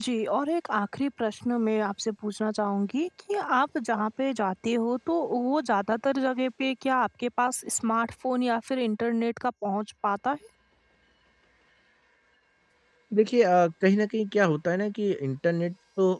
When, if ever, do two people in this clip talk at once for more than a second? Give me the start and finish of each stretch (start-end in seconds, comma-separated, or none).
none